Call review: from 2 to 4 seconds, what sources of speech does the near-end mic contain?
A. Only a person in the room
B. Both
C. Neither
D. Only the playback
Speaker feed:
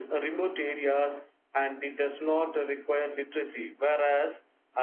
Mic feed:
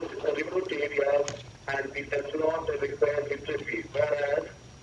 D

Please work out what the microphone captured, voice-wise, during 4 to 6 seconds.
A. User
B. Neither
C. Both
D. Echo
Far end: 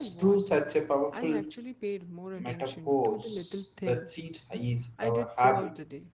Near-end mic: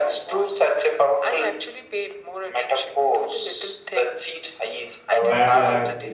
C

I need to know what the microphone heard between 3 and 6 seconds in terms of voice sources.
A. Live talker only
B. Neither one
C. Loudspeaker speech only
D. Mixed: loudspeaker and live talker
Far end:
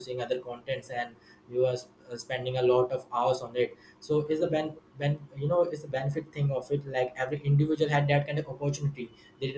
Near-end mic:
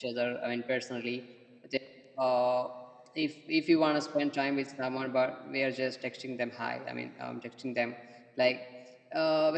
A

